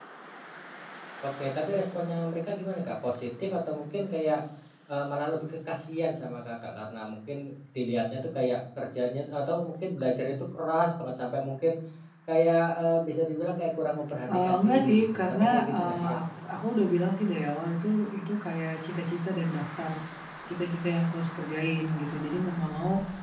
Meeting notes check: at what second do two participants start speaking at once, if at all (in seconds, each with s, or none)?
14.3 s